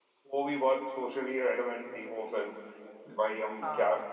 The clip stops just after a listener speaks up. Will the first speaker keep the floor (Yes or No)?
Yes